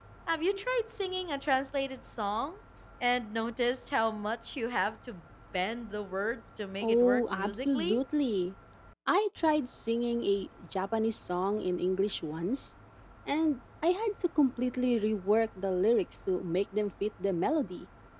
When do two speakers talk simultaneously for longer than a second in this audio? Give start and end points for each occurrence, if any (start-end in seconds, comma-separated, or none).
6.8-8.0